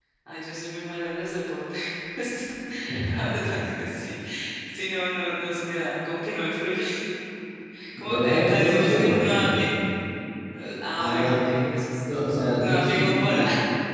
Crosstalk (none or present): present